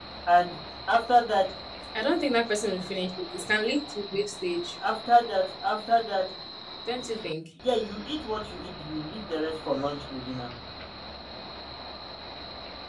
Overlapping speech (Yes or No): No